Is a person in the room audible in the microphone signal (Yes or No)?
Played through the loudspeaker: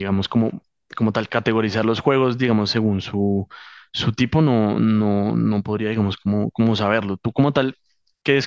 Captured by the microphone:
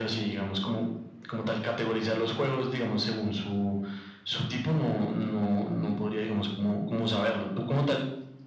No